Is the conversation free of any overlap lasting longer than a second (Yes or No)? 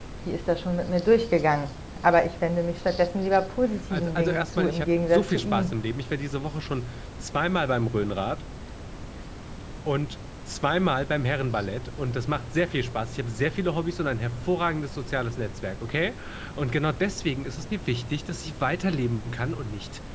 No